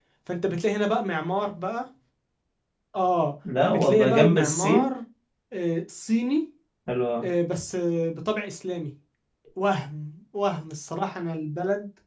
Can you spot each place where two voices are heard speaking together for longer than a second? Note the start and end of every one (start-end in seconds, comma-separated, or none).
3.6-4.9